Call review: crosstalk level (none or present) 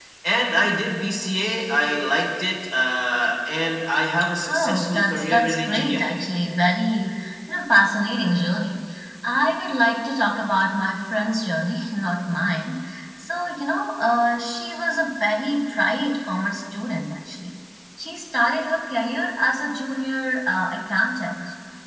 present